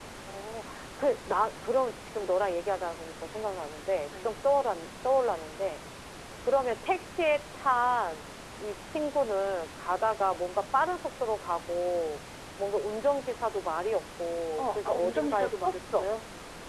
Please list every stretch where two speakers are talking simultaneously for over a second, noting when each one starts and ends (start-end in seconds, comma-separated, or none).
14.6-16.1